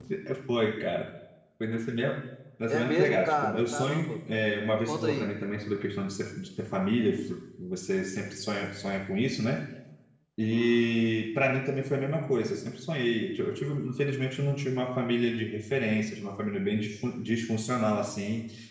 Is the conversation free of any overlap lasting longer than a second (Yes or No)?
No